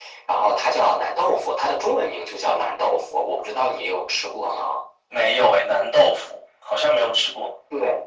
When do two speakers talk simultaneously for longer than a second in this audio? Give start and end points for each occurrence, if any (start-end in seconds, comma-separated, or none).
none